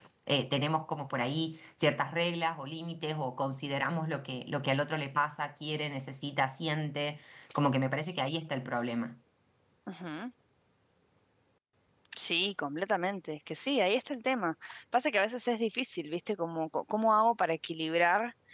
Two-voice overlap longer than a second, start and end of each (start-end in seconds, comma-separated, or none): none